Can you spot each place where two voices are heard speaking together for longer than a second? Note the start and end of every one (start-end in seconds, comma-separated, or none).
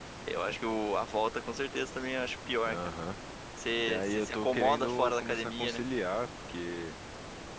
3.9-5.8